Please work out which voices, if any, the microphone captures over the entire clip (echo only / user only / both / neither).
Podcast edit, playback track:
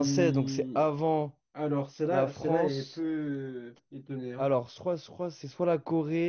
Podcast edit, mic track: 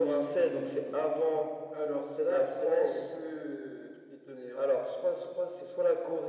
echo only